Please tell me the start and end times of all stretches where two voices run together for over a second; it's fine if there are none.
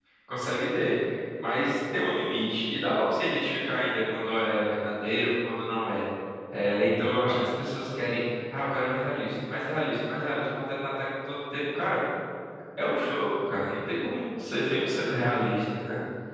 none

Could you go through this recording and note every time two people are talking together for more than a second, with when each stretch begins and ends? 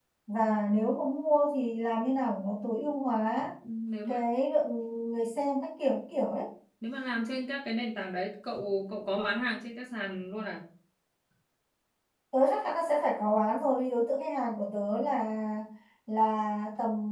none

